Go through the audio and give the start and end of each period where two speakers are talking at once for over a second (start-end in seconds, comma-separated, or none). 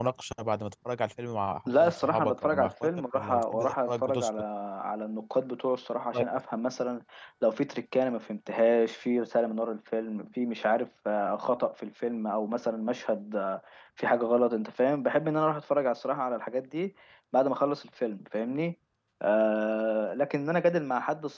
1.7-4.3